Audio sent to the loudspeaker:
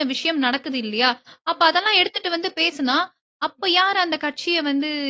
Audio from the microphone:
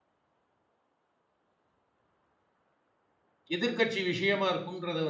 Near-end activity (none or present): present